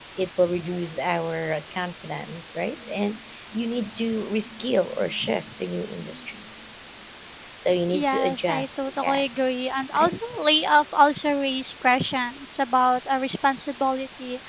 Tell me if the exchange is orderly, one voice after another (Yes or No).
No